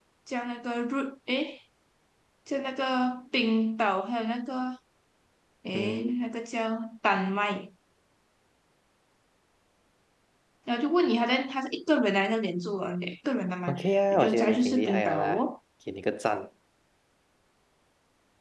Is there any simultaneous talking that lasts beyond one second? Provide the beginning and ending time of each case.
14.1-15.4

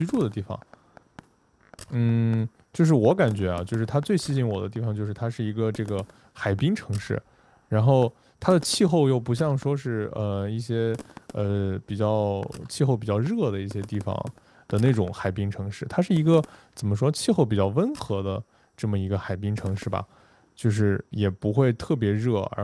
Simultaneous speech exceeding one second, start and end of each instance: none

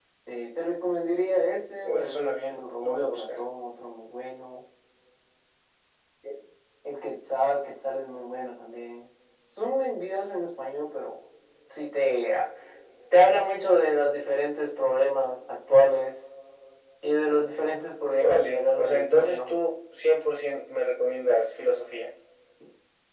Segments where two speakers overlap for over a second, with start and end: 1.8-3.4, 18.2-19.5

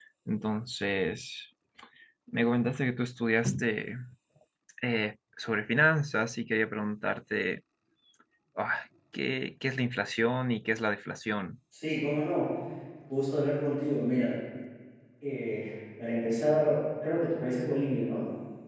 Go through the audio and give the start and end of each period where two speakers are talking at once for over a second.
none

